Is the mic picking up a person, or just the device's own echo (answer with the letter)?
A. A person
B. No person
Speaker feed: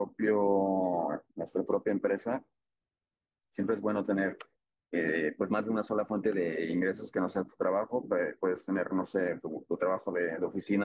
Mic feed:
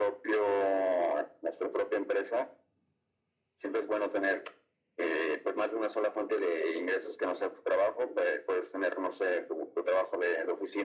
B